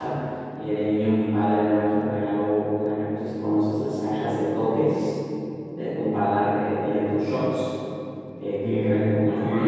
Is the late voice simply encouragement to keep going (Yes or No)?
No